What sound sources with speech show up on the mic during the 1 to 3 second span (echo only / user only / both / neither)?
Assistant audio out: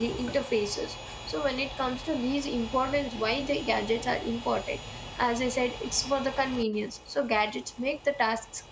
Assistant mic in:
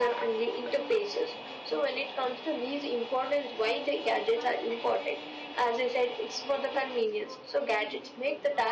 both